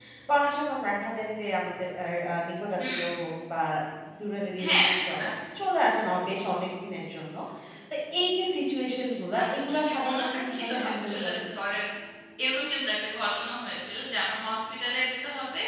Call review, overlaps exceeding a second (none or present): present